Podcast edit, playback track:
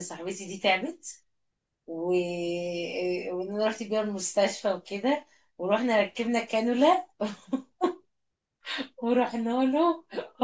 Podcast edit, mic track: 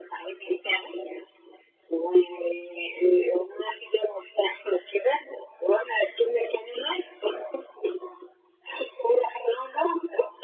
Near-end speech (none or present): none